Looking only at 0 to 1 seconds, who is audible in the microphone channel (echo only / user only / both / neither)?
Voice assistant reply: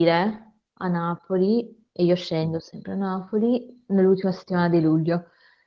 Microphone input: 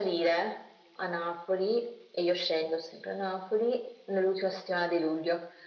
echo only